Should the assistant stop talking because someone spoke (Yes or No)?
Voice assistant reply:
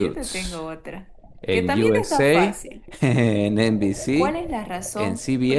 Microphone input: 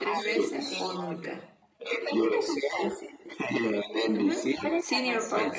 Yes